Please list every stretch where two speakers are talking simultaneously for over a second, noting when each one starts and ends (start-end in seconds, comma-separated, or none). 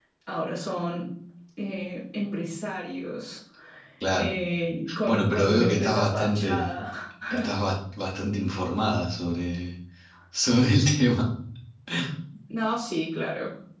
5.1-6.7